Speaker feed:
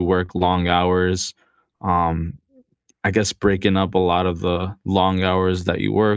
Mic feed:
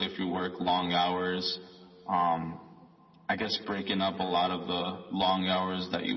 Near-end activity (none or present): none